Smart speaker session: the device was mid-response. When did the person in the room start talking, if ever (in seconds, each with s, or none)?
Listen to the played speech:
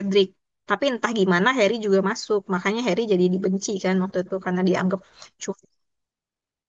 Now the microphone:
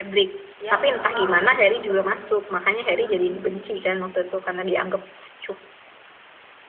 0.7 s